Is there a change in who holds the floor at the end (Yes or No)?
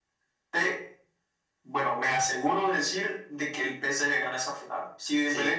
No